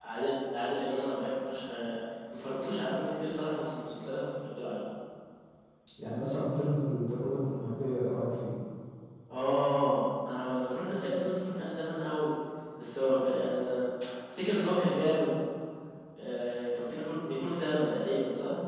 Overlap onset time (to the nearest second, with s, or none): none